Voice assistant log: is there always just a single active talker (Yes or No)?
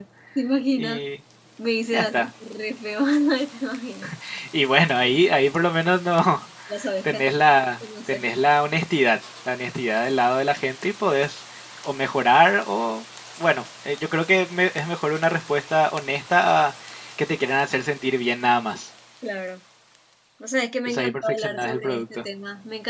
No